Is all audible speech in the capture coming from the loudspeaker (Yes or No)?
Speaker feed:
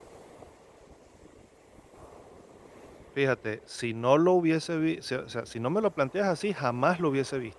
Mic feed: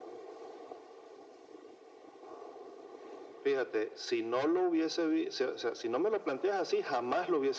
Yes